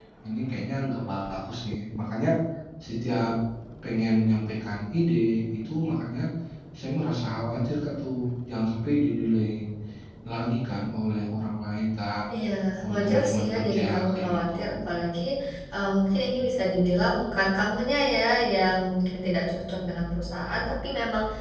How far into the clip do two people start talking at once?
12.9 s

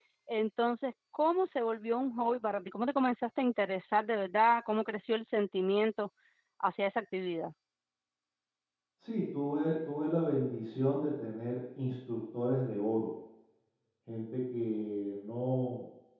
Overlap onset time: none

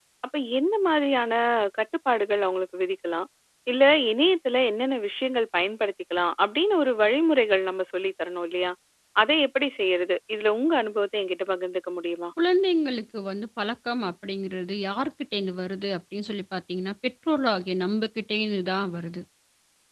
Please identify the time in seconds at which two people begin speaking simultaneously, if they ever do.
none

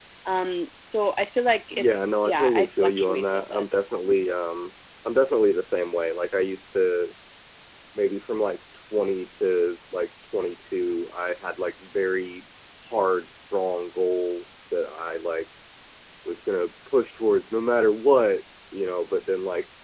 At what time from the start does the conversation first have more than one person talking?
1.7 s

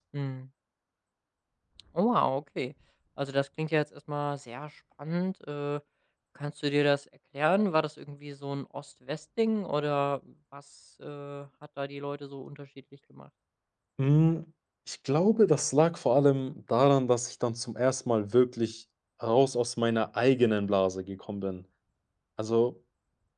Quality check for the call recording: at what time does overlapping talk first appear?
none

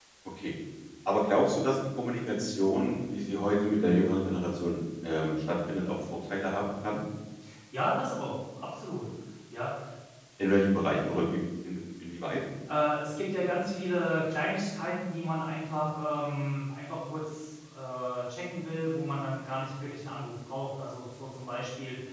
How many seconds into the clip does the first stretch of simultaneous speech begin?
none

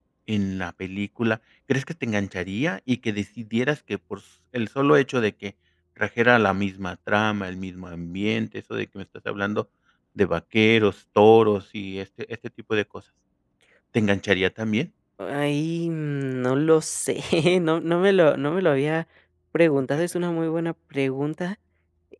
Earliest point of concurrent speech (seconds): none

